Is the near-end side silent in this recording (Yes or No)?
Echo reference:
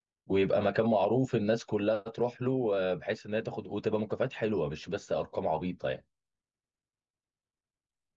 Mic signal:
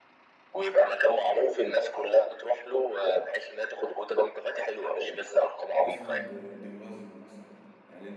No